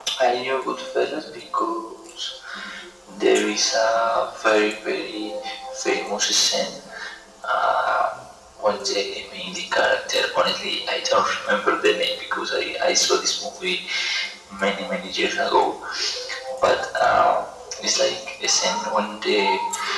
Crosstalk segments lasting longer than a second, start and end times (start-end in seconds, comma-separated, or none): none